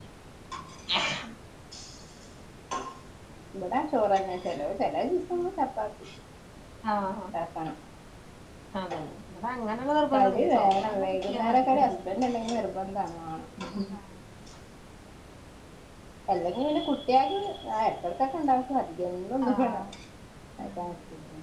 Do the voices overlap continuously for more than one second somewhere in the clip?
Yes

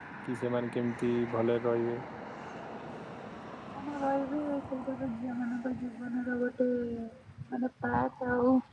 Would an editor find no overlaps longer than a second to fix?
Yes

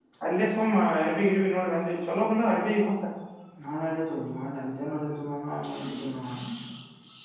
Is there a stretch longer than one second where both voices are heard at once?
No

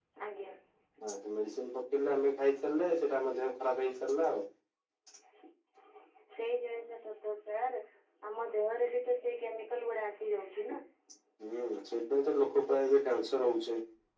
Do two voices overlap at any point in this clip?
No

